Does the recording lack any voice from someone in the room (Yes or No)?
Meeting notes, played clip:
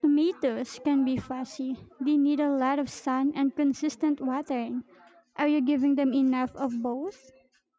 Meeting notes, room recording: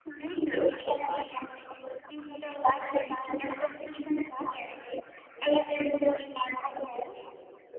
Yes